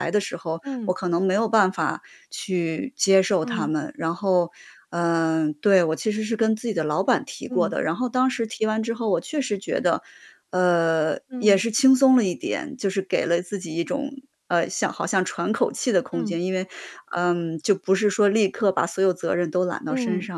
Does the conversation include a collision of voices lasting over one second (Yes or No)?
No